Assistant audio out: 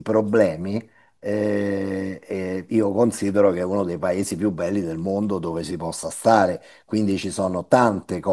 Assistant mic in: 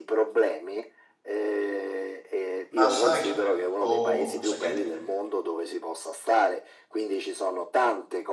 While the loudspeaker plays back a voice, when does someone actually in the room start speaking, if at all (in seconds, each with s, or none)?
2.7 s